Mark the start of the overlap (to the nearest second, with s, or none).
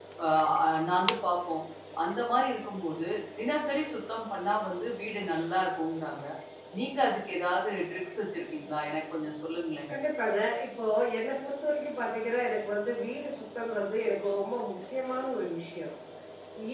none